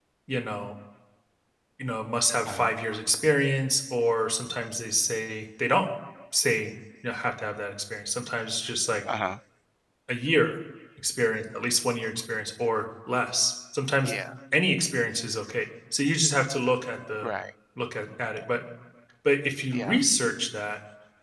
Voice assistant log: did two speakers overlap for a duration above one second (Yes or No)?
No